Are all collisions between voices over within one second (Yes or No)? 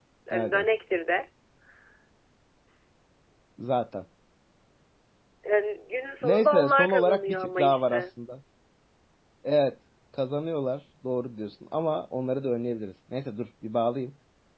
No